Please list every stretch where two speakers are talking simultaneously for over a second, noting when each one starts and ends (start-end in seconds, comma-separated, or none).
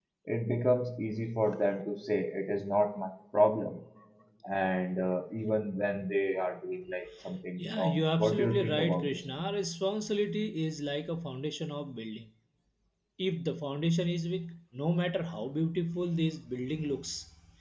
7.6-9.4